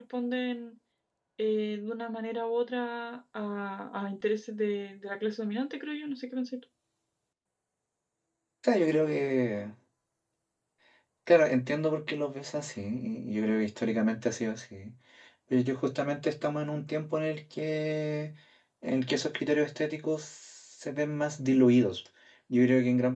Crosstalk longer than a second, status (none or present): none